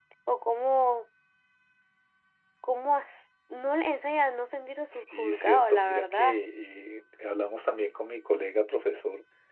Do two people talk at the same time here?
Yes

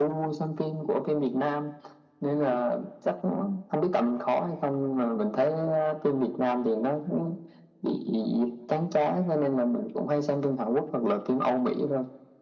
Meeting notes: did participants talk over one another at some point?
No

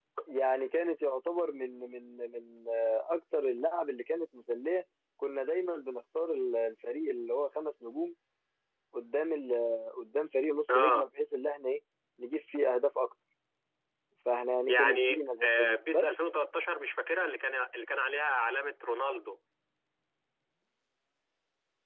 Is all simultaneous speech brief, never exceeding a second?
No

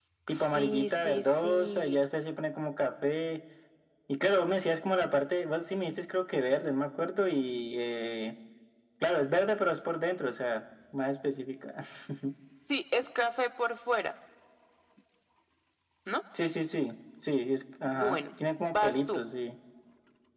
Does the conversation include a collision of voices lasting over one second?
Yes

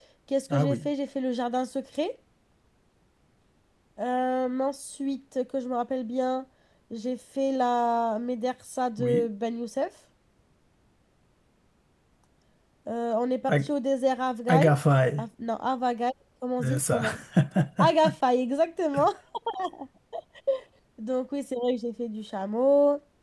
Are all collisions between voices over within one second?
Yes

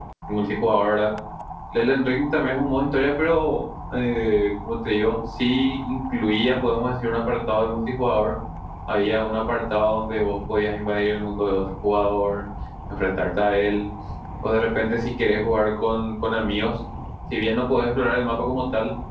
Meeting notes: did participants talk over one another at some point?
No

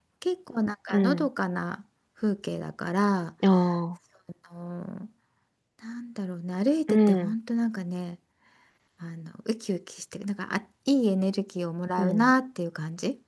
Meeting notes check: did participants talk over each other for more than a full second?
No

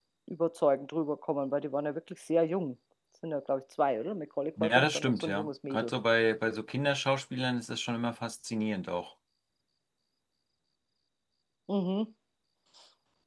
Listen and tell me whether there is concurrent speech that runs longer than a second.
Yes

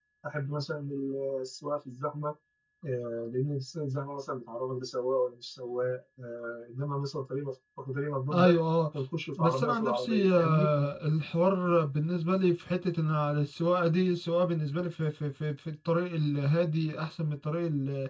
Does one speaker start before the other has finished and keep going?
Yes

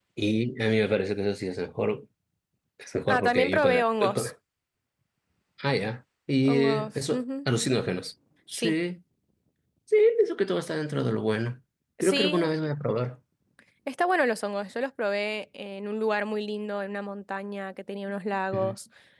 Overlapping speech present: Yes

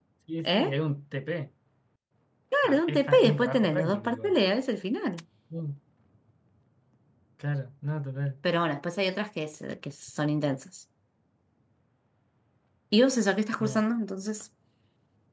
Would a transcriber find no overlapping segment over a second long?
No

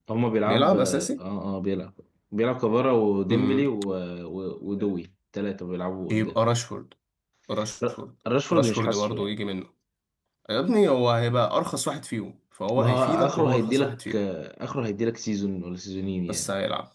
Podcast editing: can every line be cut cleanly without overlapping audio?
No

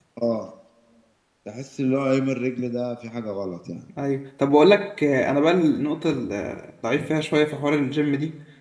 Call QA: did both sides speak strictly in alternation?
Yes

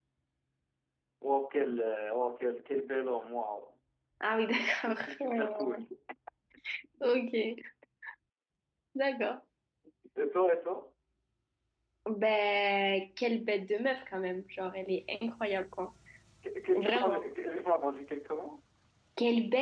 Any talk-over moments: Yes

